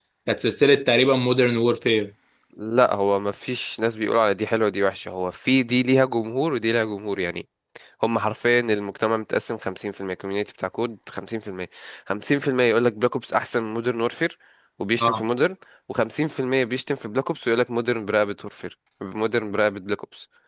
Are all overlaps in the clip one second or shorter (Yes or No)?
Yes